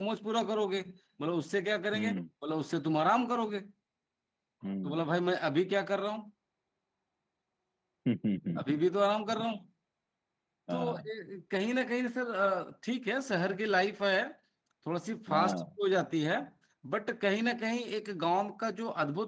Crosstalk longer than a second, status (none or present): none